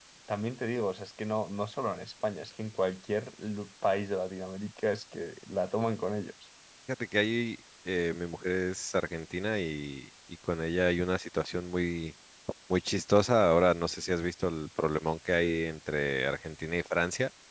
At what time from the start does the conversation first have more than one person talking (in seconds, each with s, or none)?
none